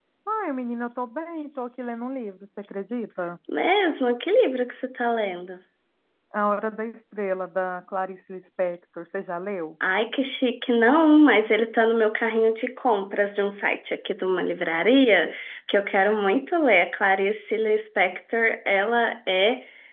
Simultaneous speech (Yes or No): No